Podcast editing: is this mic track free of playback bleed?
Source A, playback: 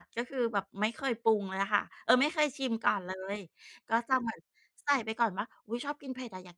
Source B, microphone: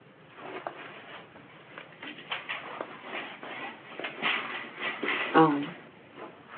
Yes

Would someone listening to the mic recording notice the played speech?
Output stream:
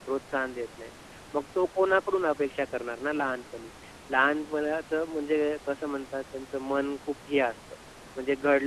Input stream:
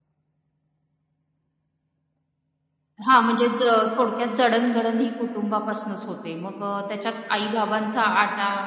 No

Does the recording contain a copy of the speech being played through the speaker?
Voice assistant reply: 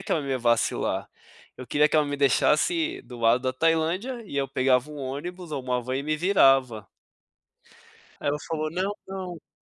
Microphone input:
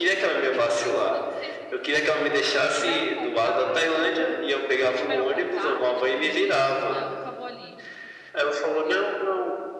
Yes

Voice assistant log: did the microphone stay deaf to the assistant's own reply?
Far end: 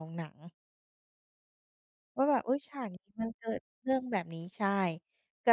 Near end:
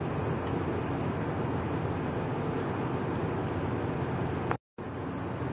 Yes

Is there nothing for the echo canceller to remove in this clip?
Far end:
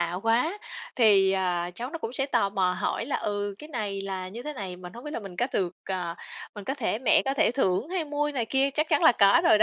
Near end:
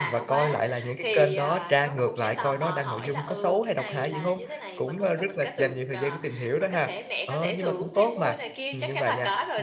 No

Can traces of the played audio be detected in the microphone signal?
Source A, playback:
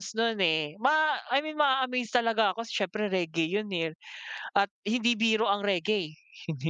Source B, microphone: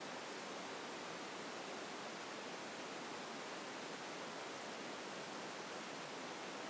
No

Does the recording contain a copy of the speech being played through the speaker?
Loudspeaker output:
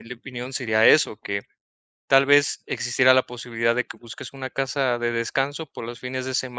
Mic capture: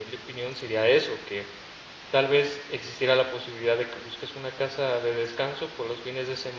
Yes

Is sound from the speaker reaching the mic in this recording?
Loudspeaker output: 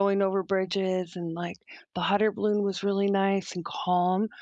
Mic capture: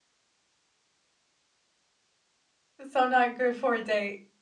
No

